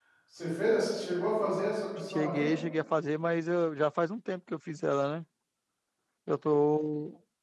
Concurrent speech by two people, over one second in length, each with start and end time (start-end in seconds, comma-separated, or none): none